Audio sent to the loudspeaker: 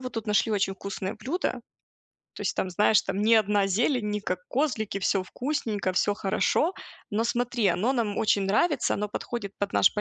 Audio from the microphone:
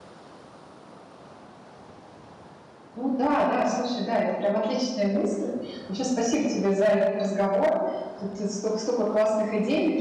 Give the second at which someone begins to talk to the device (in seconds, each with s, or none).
2.9 s